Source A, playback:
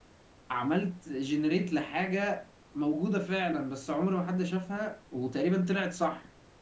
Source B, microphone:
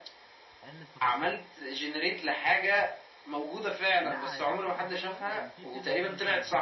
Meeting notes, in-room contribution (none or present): present